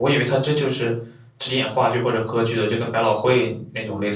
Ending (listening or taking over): taking over